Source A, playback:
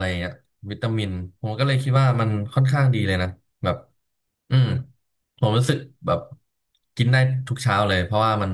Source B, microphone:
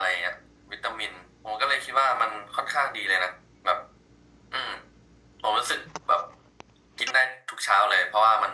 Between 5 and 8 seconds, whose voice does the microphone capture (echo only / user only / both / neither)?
echo only